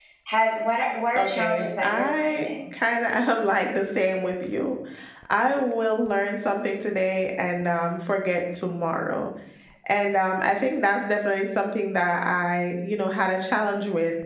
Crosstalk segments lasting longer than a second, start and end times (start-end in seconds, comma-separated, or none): 1.2-2.5